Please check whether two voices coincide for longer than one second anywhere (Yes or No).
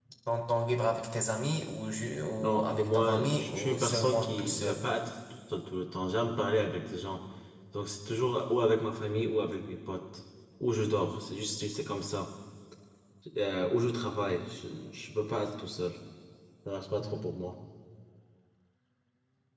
Yes